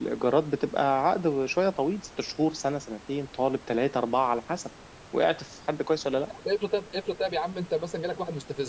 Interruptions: none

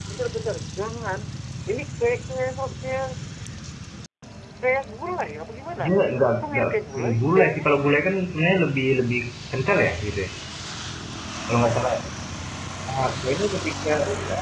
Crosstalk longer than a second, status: present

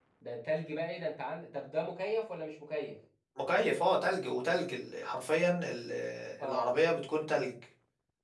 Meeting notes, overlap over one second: none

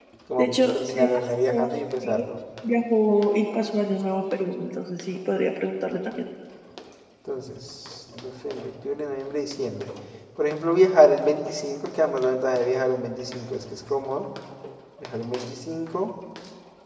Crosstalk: present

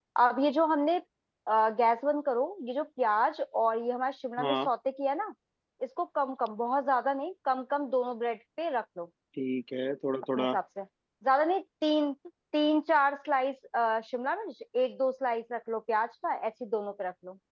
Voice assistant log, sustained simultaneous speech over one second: none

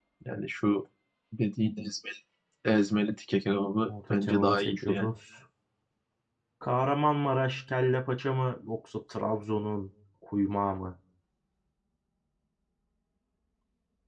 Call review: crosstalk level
present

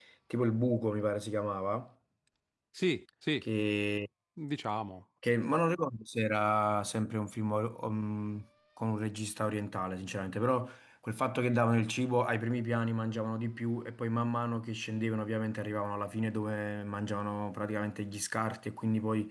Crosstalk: none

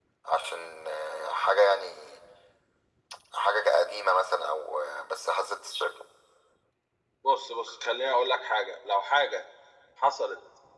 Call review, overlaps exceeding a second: none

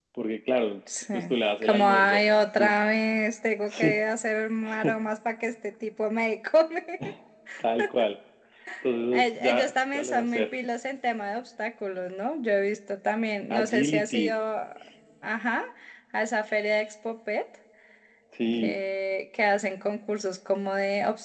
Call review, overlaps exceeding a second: present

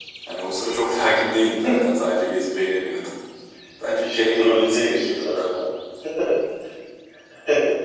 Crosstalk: present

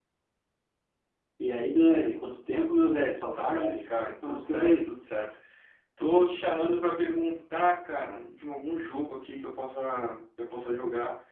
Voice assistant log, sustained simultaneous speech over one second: present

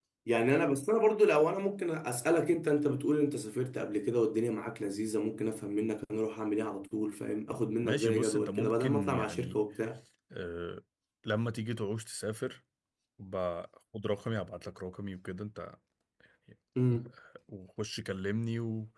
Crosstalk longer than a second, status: present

